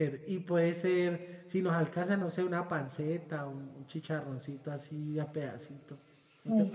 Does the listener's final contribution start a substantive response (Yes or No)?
Yes